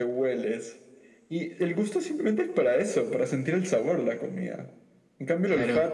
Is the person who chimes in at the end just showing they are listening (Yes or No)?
Yes